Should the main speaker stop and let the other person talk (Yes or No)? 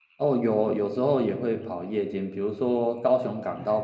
No